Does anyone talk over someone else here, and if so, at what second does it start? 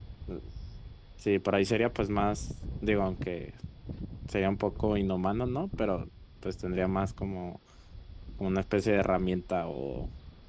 none

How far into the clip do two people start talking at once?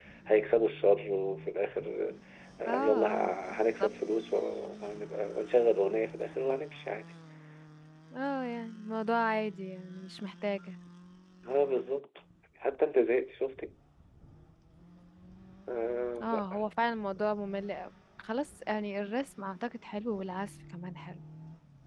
2.7 s

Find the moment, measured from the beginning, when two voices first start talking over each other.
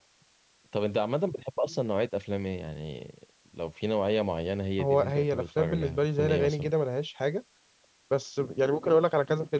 4.8 s

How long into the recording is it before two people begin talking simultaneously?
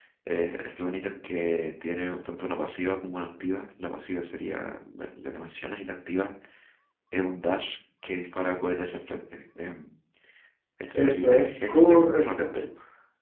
10.9 s

